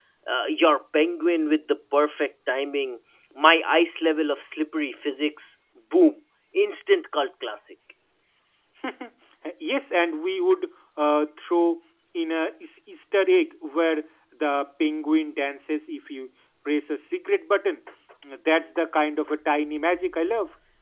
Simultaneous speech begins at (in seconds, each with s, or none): none